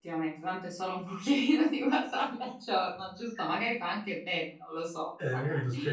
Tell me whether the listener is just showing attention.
No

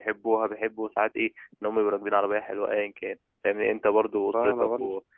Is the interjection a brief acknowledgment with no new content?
Yes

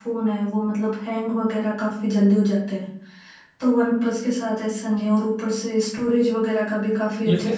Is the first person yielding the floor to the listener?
Yes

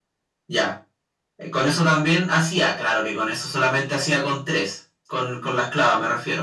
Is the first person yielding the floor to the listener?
No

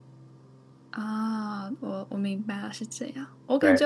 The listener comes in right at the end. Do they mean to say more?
No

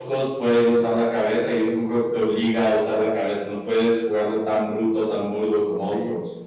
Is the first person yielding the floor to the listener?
Yes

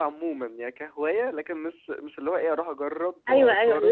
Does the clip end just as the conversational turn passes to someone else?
Yes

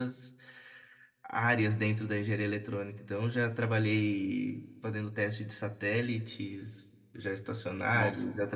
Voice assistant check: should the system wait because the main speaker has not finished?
Yes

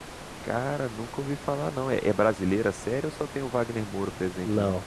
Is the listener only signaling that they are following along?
No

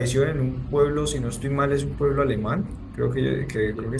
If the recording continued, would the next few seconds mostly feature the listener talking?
No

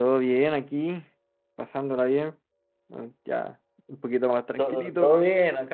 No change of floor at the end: No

